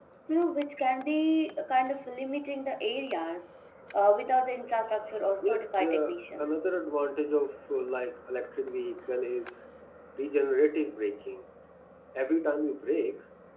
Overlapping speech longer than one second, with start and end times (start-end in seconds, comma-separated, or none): 5.4-6.7